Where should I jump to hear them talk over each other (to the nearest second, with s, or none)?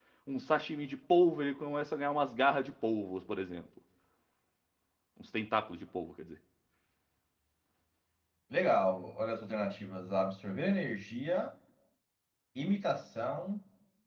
none